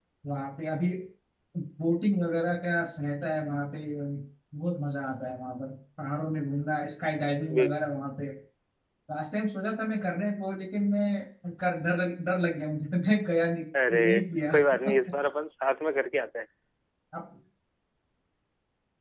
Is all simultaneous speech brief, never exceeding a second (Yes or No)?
Yes